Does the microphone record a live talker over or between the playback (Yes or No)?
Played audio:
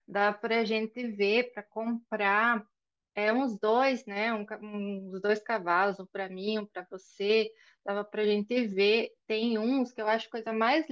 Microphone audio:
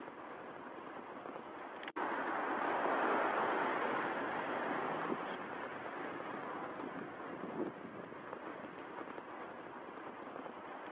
No